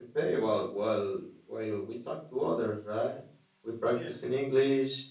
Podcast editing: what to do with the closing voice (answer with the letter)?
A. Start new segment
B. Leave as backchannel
B